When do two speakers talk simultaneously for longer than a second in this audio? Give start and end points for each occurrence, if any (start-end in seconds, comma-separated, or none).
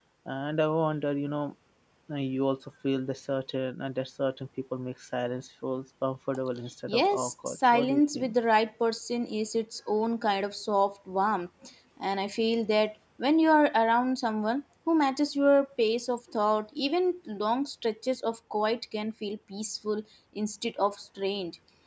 6.9-8.3